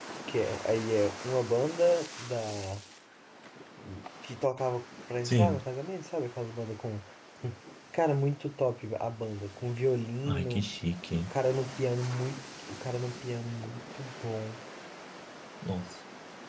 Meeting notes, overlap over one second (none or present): none